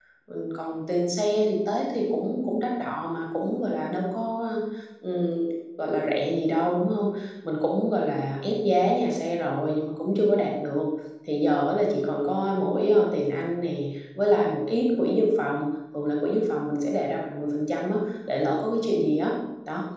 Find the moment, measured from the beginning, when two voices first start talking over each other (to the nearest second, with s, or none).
none